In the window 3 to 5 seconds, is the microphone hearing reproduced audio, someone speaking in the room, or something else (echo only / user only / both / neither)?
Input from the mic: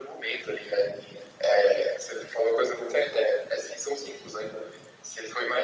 echo only